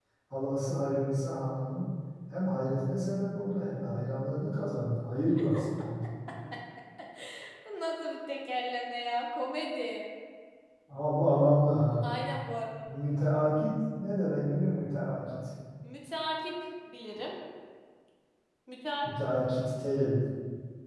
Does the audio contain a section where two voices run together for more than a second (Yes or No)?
No